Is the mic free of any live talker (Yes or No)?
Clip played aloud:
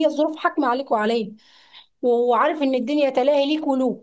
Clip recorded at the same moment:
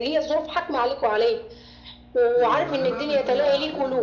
No